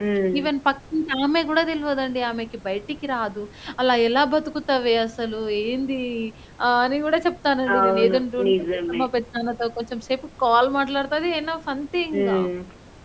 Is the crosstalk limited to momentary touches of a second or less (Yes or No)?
No